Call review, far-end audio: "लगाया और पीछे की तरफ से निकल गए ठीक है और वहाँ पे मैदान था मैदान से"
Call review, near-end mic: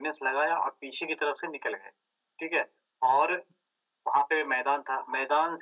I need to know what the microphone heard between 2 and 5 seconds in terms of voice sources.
echo only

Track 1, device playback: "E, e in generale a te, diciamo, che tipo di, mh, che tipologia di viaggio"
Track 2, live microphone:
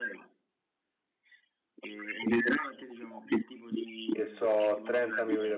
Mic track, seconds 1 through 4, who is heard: echo only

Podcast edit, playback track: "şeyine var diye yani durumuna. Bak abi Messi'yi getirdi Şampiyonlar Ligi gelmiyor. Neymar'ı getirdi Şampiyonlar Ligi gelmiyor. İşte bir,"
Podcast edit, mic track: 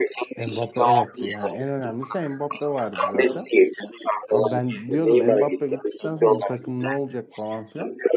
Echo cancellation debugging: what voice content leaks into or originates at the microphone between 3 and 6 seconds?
both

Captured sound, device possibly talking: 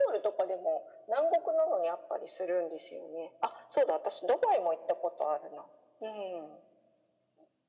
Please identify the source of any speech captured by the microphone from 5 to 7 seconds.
echo only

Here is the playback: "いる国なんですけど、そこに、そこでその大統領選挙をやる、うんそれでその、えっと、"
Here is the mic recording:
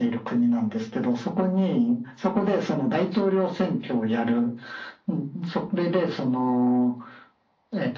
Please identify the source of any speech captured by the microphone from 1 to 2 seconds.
echo only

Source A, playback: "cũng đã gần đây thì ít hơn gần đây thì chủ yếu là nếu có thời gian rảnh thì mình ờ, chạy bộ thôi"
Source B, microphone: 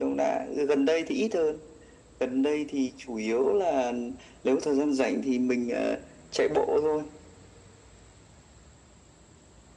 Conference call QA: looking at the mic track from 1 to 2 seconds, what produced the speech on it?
echo only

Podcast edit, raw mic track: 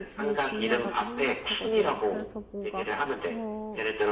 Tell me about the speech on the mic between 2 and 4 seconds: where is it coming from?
both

